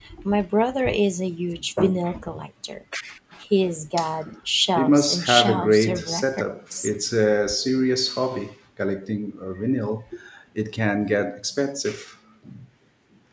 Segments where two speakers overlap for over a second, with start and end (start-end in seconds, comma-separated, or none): 4.8-6.9